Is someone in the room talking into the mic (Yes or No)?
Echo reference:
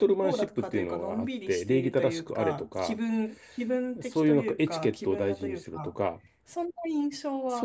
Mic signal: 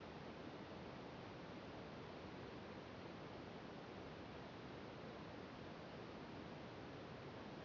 No